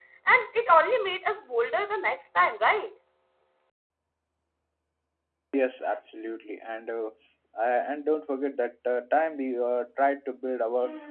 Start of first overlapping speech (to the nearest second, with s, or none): none